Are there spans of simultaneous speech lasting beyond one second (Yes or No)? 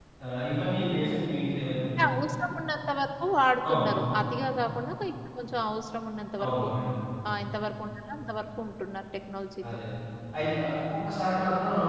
No